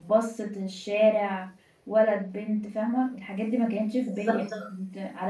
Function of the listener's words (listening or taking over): listening